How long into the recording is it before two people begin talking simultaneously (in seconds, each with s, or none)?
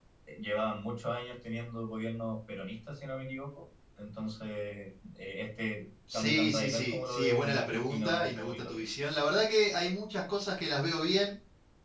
6.1 s